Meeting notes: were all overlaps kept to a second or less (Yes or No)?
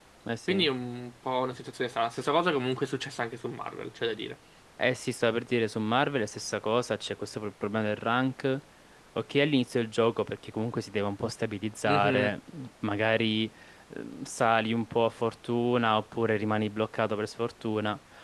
Yes